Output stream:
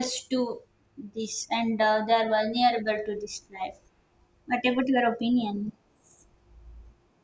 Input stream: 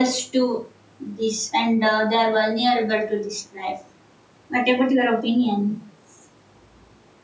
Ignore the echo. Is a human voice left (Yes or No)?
No